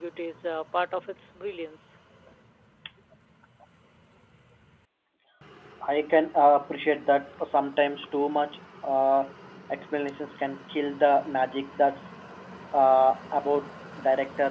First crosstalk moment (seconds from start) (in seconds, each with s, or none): none